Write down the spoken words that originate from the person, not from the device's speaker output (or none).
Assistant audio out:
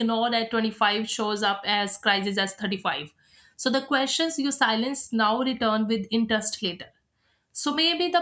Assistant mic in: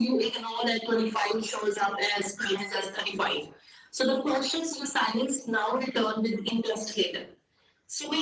none